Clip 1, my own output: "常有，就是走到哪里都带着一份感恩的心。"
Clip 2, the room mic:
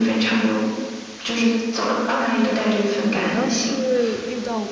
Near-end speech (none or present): present